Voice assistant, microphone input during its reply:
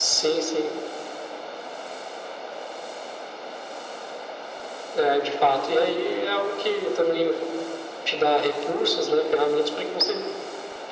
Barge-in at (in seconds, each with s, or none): none